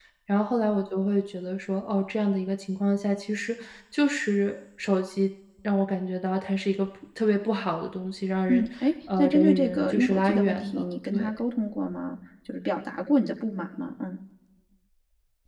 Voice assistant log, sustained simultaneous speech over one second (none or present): present